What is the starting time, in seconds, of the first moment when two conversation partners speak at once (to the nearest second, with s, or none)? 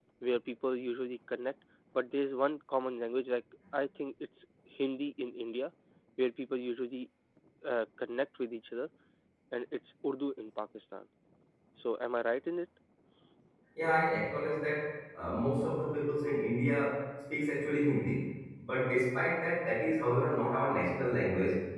none